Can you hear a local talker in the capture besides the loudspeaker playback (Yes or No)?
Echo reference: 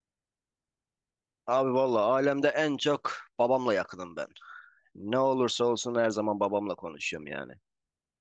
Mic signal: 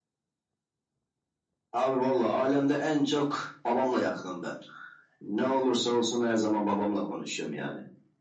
No